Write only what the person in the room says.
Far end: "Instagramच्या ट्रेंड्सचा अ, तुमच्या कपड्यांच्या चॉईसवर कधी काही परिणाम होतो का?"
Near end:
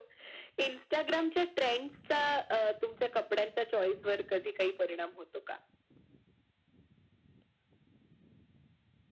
none

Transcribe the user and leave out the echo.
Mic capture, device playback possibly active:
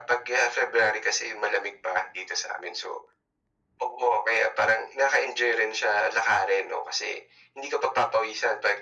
none

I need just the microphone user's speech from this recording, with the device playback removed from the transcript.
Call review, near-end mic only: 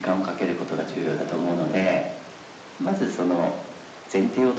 none

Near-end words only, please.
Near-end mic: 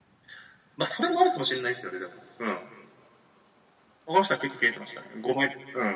none

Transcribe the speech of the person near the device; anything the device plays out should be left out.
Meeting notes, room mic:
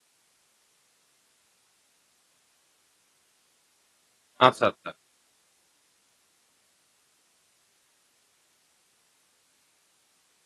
আচ্ছা, আচ্ছা।

